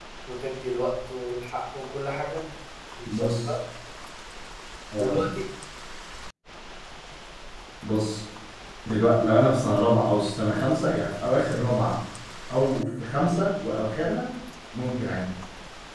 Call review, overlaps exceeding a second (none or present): none